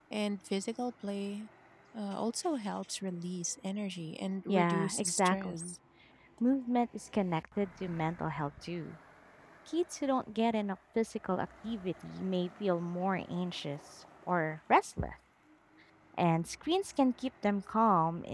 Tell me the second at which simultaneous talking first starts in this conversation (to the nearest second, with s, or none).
4 s